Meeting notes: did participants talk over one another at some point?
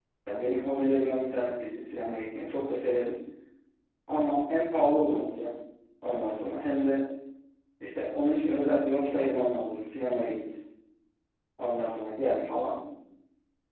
No

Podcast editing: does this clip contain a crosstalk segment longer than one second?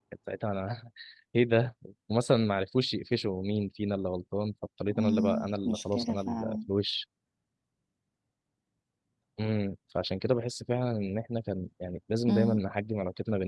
Yes, from 5.0 s

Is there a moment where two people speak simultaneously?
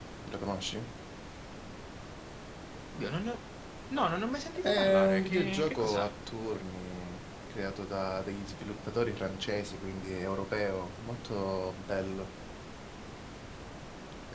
Yes, from 4.6 s

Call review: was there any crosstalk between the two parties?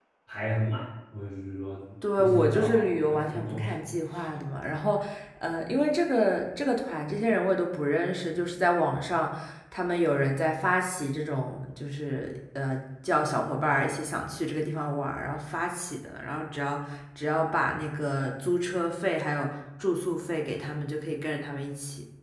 Yes, from 2.0 s

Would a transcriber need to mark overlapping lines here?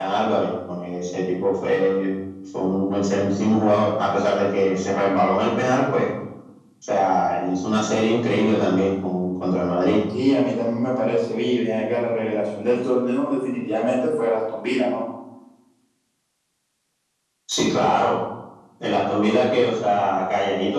No

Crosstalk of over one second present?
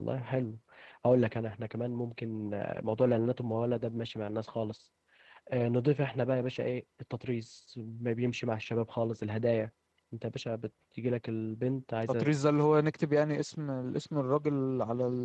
No

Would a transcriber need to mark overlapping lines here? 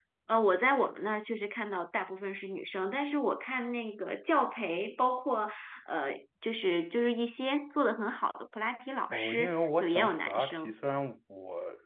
Yes, from 9.1 s

